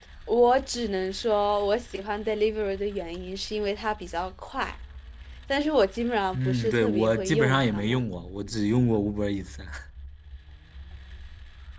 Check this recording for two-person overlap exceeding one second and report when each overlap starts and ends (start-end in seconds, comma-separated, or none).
6.3-8.0